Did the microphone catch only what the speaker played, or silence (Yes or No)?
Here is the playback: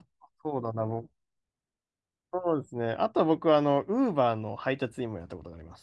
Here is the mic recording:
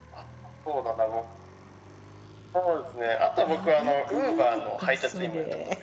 No